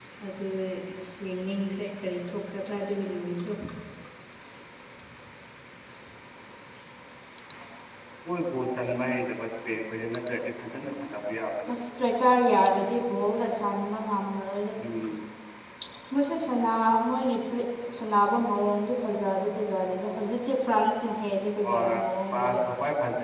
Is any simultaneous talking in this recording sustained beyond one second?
No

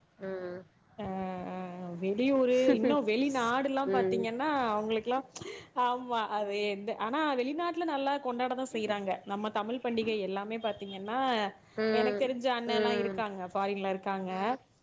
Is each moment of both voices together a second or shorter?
Yes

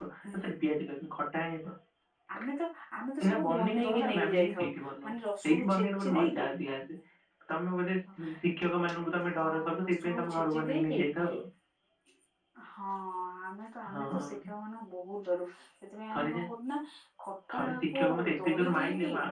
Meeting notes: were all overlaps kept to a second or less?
No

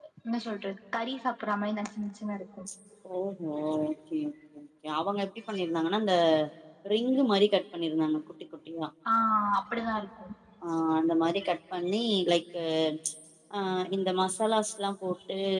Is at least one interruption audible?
No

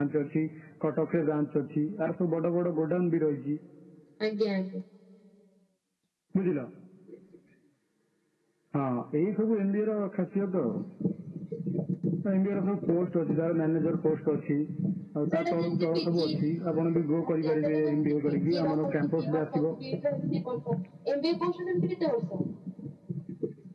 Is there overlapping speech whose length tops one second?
Yes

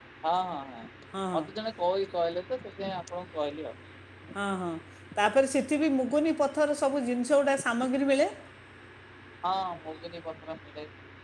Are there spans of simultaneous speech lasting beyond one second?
No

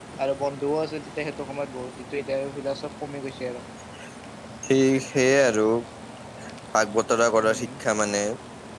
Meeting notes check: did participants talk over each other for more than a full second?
No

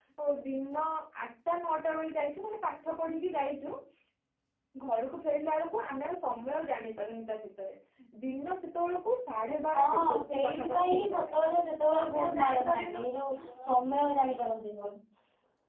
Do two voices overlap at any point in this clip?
Yes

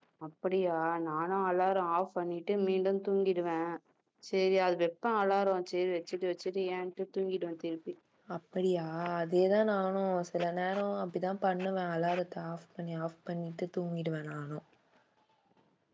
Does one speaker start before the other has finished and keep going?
No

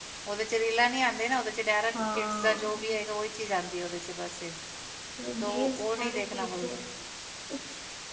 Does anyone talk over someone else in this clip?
Yes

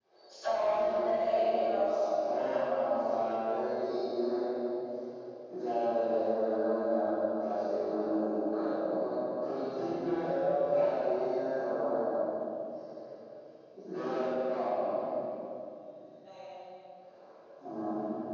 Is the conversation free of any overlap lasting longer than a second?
No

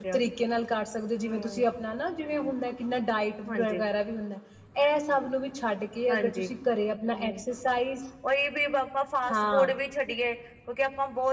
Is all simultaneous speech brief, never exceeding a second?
Yes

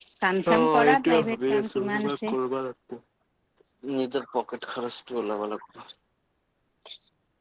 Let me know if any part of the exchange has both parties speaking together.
Yes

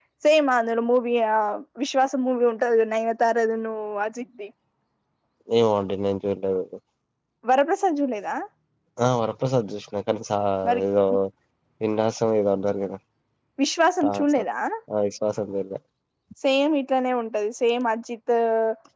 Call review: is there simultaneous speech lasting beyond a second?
No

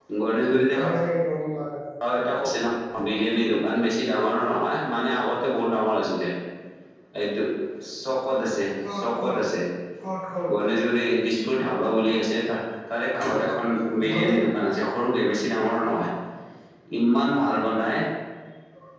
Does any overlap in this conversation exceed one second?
No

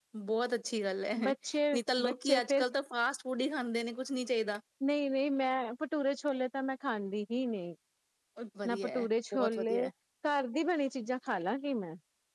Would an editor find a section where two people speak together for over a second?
Yes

